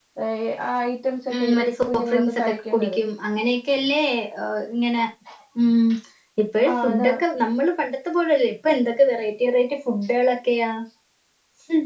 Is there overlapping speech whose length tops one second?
Yes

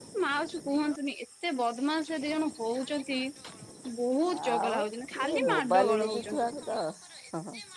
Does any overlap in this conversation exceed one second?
Yes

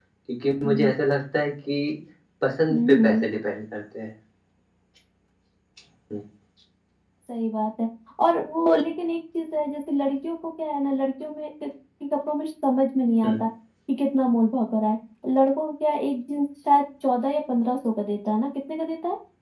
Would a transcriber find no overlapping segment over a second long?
Yes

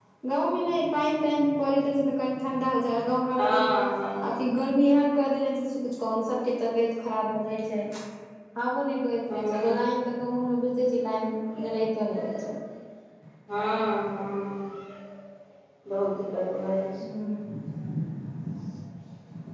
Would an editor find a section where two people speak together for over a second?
No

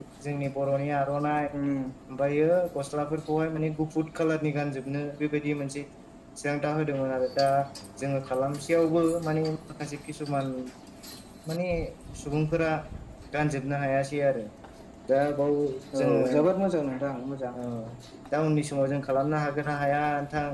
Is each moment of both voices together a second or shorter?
Yes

